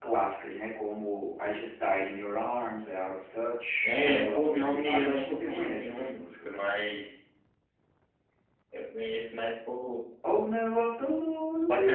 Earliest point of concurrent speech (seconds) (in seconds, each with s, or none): 3.8 s